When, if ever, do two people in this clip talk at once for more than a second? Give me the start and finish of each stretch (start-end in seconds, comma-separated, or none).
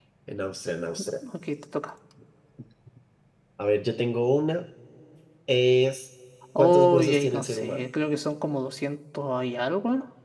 6.6-7.9